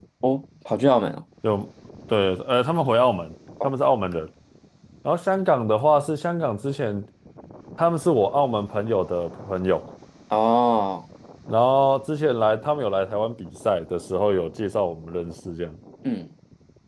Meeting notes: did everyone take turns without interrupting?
Yes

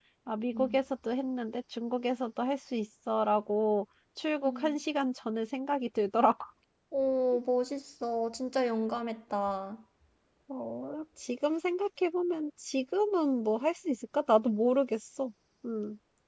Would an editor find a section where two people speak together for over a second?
No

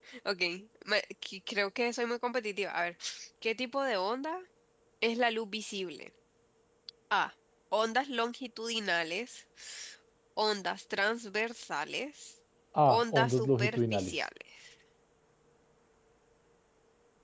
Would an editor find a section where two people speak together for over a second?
Yes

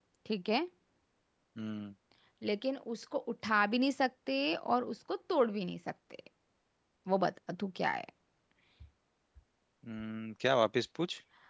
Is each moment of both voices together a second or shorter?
Yes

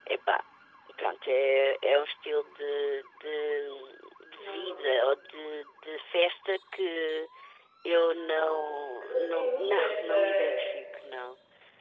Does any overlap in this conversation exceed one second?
Yes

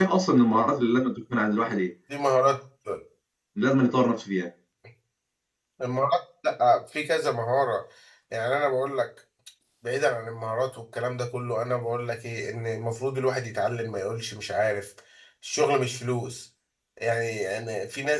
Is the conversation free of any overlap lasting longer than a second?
Yes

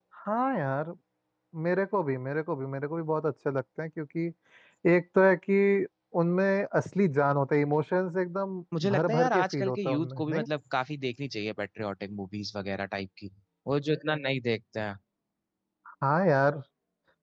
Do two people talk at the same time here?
Yes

